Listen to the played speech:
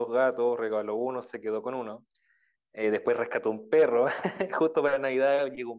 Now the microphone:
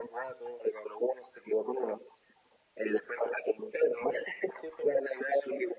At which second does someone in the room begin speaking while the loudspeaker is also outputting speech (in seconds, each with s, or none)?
none